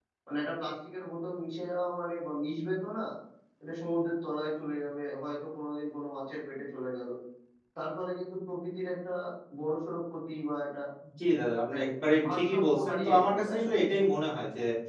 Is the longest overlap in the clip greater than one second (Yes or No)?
Yes